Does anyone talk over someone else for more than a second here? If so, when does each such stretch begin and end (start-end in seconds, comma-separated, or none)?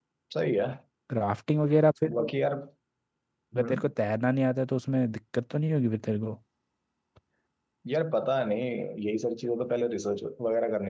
none